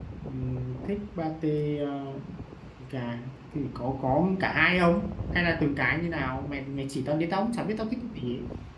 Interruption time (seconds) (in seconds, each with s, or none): none